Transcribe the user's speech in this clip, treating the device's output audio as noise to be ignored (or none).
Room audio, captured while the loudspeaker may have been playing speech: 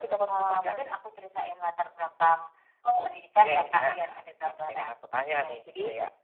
none